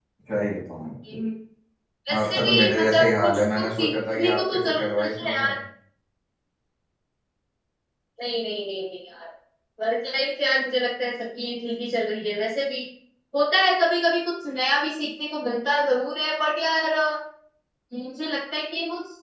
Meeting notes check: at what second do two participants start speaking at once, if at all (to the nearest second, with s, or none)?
2 s